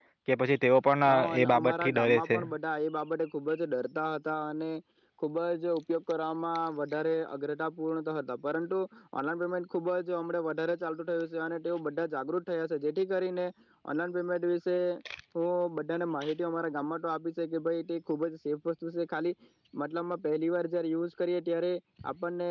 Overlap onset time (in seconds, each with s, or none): 1.0 s